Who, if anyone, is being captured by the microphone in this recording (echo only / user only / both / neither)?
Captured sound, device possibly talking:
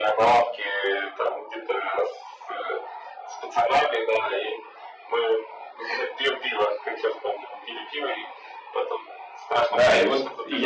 both